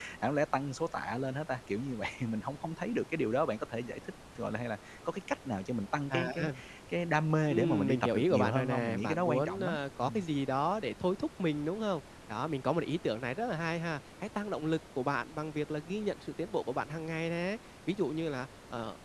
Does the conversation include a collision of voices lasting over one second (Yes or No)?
Yes